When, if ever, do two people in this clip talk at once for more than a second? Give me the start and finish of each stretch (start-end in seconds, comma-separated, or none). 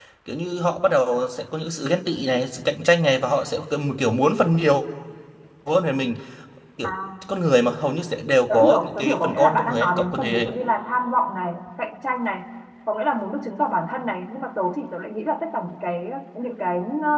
8.5-10.4